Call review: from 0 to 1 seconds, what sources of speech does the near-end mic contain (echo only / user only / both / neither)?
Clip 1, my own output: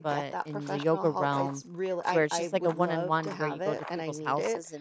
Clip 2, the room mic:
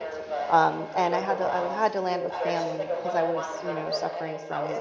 both